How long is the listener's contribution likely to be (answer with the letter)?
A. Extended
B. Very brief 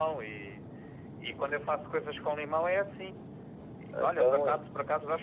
B